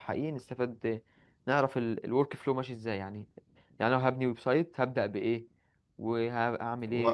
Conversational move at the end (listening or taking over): taking over